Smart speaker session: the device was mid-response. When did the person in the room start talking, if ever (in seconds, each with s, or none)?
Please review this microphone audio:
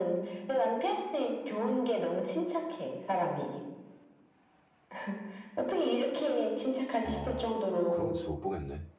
7.0 s